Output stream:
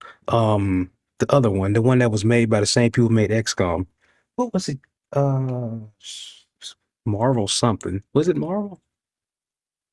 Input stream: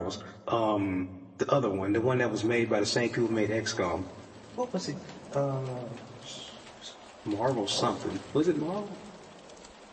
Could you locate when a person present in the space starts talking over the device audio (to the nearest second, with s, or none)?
none